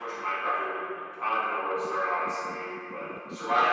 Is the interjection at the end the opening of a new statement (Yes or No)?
Yes